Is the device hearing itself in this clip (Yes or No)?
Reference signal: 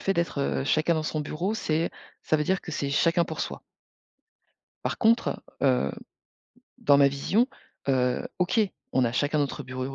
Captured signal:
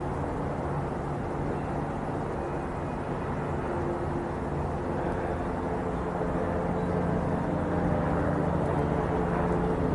No